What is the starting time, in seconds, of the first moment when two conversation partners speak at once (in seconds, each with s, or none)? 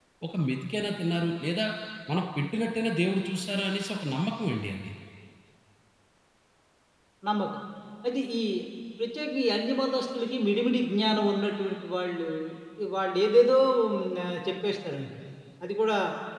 none